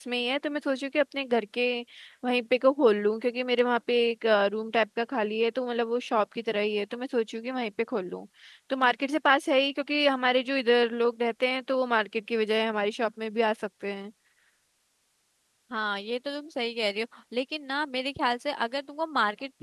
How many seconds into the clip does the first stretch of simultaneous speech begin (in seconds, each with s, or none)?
none